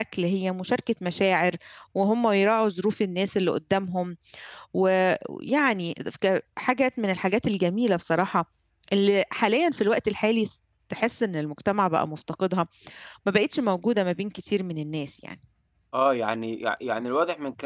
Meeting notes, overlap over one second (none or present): none